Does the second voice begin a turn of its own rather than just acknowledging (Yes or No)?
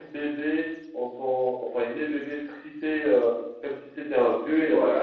No